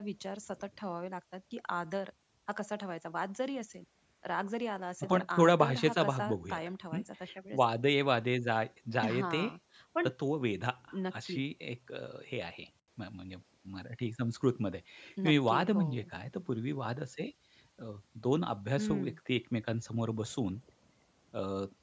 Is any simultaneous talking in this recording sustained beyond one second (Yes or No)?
Yes